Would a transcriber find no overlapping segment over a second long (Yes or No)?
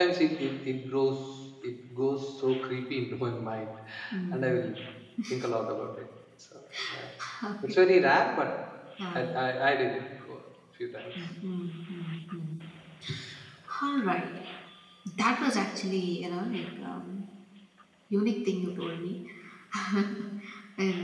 Yes